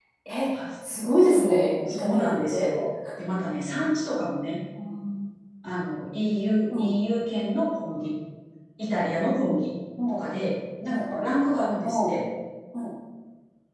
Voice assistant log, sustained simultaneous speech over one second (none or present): present